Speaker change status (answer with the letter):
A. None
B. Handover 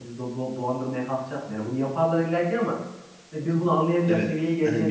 B